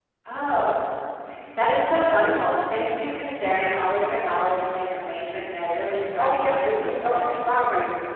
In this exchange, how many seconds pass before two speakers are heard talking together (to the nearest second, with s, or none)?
6 s